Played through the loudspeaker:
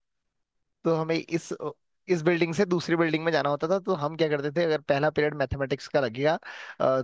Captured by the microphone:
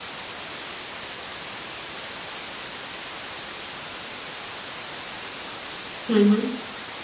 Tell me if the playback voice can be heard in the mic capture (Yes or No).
No